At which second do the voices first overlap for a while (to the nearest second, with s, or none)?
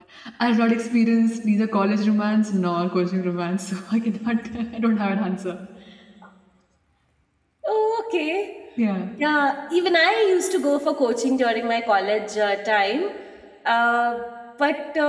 none